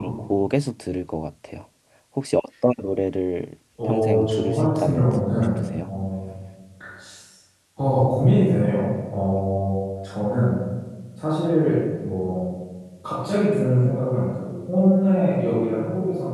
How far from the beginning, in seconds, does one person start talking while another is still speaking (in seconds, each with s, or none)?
3.8 s